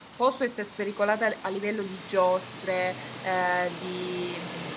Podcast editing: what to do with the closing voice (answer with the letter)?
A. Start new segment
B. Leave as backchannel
B